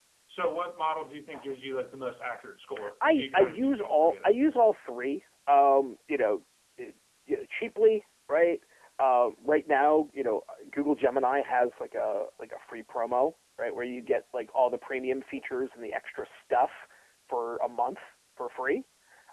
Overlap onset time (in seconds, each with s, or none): 3.0 s